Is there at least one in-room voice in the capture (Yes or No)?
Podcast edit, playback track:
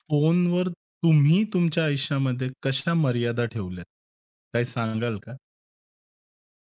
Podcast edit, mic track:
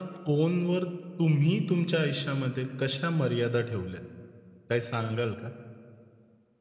No